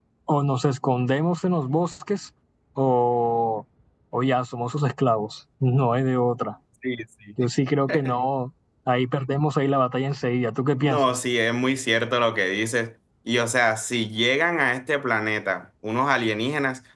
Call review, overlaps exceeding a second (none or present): none